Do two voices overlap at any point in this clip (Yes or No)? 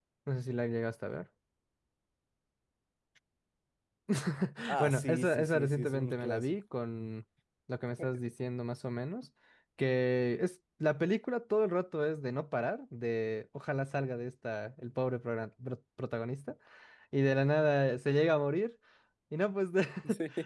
Yes